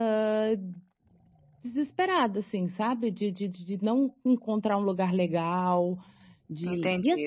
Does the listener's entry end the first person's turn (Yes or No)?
Yes